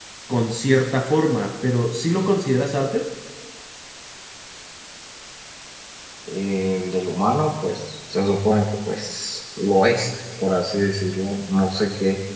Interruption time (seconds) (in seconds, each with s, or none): none